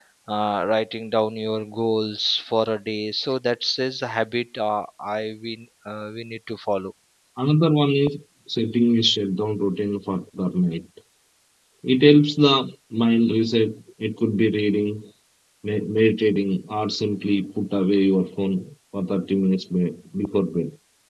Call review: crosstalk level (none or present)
none